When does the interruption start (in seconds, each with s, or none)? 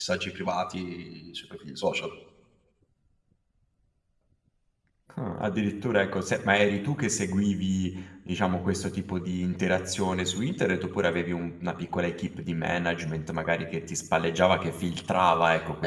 none